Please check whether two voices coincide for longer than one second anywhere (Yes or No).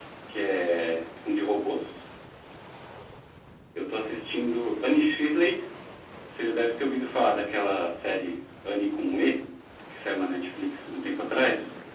No